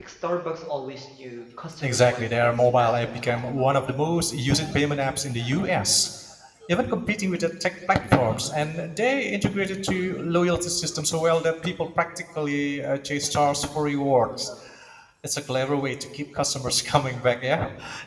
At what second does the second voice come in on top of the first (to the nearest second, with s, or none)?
2 s